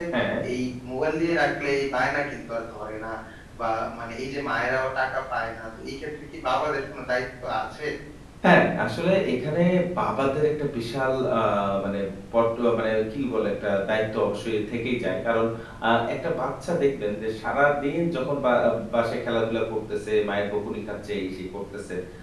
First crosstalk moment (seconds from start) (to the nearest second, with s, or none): none